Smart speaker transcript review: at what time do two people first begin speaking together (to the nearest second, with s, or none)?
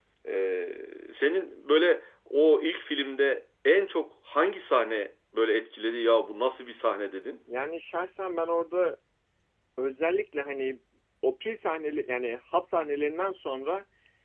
none